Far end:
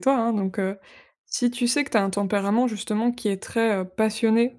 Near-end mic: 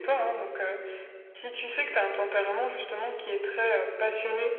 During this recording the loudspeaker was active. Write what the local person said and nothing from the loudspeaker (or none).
none